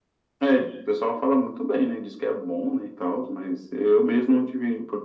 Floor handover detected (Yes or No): No